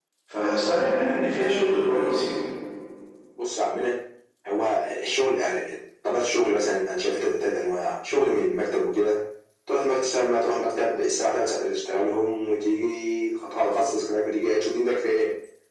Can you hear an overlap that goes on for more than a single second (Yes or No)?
No